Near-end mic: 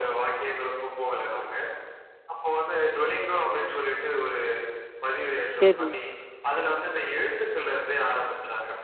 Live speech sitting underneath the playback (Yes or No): No